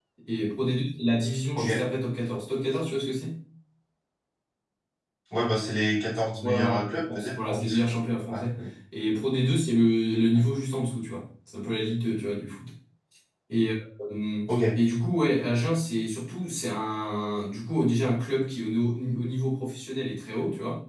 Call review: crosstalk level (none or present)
present